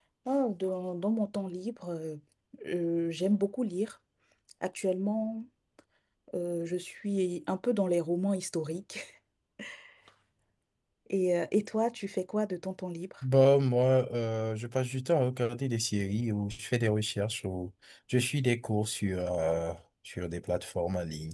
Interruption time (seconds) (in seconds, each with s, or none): none